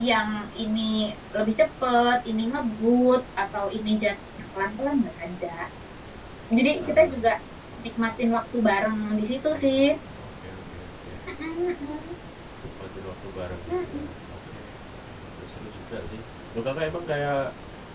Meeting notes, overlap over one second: none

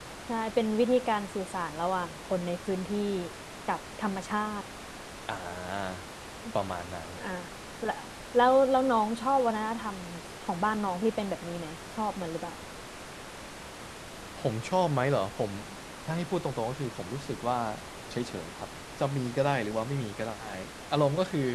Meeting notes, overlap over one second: none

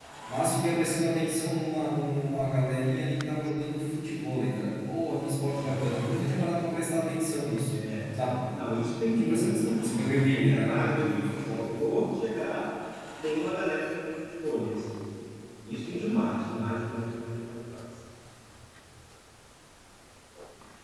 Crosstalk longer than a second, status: present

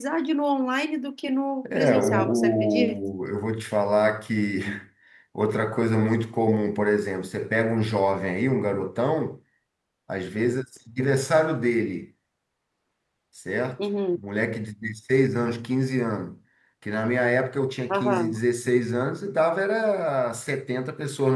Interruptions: present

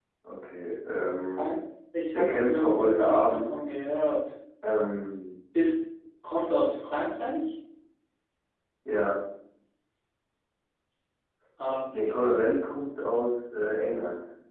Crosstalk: present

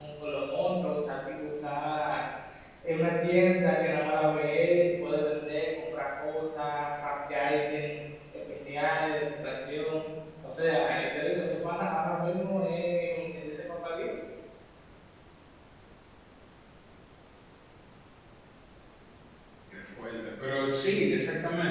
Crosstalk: none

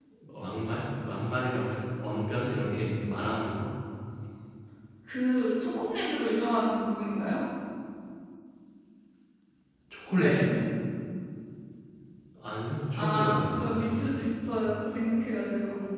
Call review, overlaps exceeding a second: present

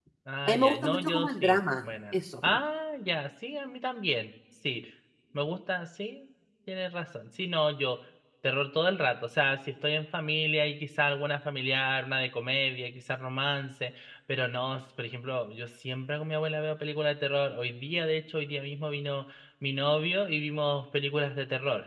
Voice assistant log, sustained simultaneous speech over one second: present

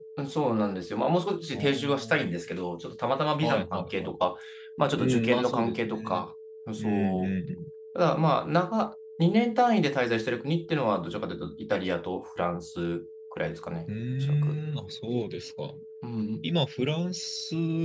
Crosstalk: present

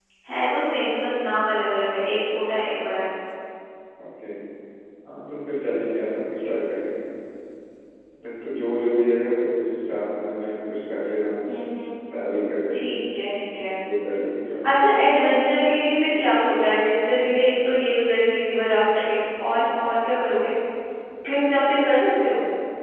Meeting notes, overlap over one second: none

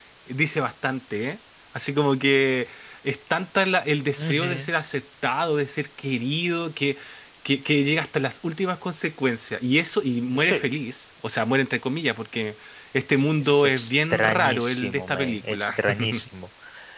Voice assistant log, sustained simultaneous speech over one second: present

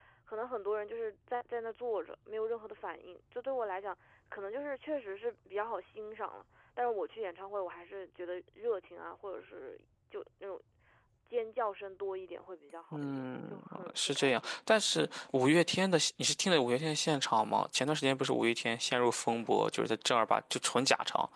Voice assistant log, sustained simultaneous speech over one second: present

